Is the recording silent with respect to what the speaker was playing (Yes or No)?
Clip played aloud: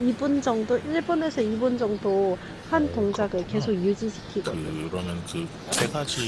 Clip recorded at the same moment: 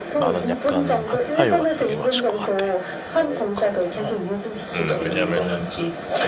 No